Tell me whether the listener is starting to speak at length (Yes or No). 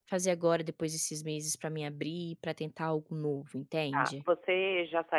Yes